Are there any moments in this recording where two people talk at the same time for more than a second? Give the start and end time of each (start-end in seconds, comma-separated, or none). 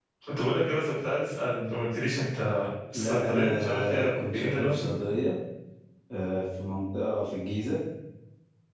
2.9-4.8